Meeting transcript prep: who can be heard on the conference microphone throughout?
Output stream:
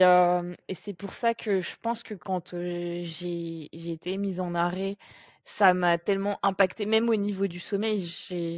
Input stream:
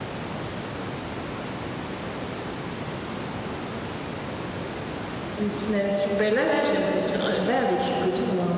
user only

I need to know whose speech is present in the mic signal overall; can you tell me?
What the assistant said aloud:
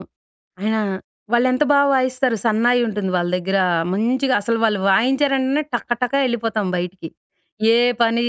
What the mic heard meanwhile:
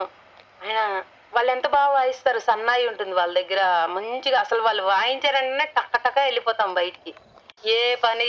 echo only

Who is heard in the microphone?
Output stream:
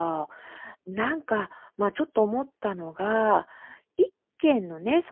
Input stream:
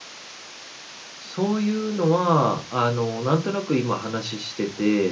user only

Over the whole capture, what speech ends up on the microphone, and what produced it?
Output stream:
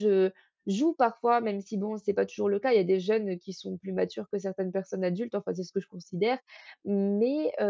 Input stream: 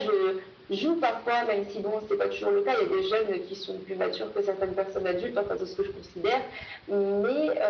echo only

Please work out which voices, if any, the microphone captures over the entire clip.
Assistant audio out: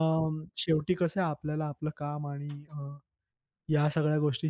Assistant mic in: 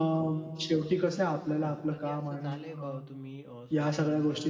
both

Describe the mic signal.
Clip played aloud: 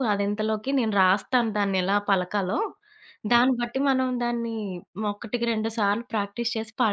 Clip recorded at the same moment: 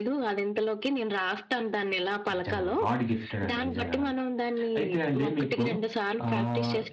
both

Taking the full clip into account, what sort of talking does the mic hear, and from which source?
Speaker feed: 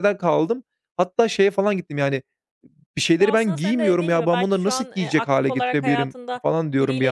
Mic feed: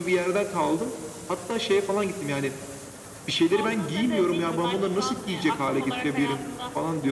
echo only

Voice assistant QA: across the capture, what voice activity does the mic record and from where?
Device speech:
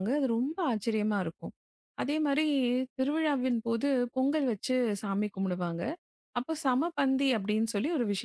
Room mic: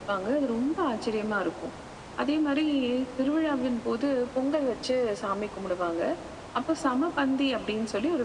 echo only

